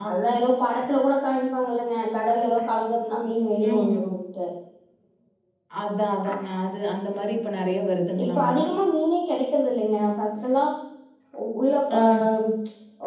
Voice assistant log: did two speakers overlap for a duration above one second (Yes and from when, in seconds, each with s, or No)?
No